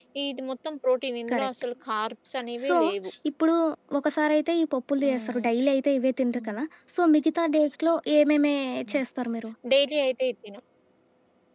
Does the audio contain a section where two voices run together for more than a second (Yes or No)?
No